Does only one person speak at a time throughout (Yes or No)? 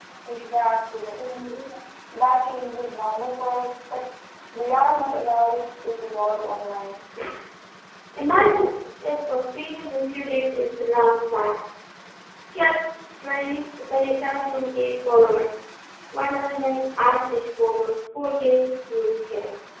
Yes